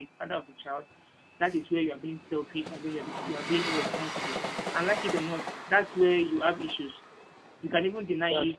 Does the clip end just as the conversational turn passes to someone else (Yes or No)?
No